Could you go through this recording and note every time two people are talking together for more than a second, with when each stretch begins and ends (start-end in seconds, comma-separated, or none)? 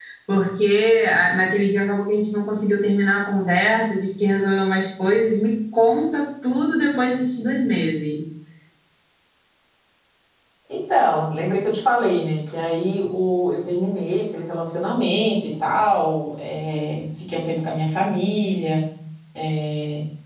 none